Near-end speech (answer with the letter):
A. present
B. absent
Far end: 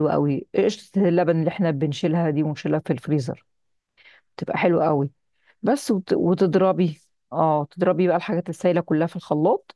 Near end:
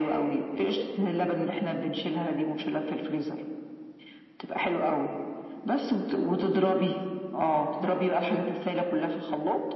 B